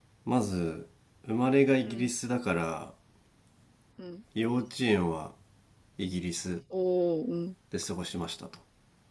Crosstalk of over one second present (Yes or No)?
No